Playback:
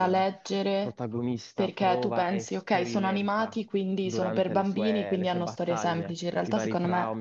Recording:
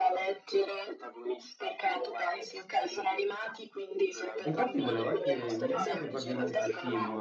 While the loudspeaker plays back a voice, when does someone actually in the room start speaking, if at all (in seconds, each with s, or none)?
4.4 s